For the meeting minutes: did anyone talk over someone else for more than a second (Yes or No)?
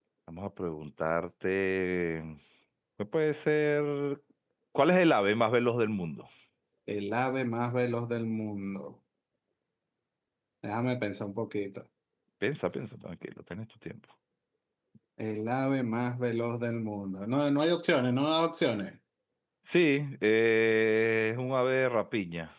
No